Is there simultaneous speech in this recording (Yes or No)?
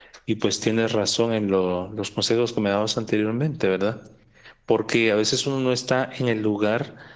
No